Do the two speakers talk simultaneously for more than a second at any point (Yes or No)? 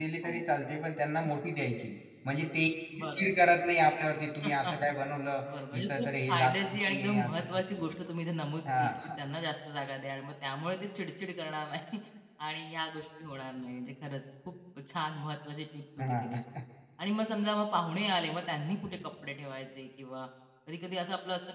Yes